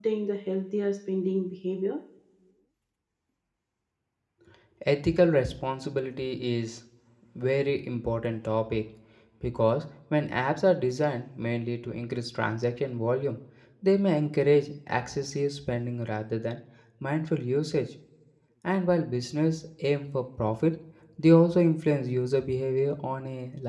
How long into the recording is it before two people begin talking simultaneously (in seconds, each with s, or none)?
none